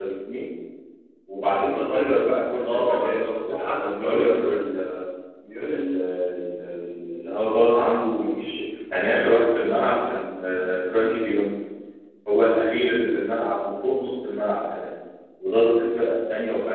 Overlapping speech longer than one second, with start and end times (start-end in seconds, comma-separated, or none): 2.6-4.3